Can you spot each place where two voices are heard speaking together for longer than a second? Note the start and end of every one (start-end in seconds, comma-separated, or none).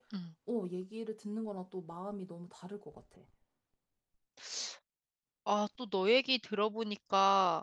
none